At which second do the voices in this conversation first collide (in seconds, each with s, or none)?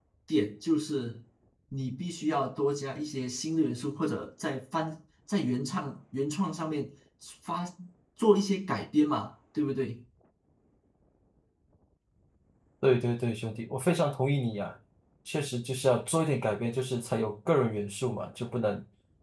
none